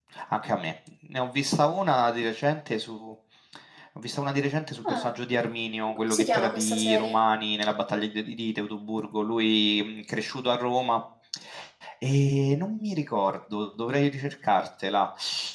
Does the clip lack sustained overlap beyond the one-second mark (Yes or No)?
No